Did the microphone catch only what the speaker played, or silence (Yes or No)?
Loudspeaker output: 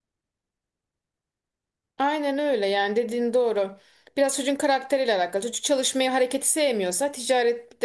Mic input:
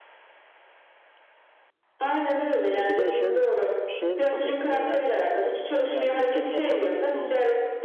No